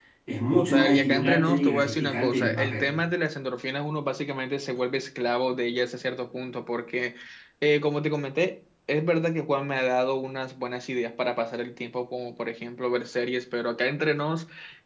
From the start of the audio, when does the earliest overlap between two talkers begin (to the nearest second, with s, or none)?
1 s